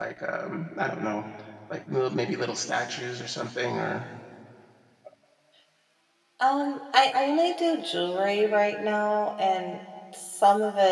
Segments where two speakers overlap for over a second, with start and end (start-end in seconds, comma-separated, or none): none